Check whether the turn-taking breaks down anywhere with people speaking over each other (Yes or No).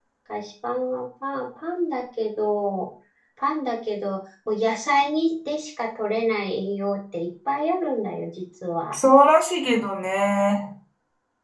No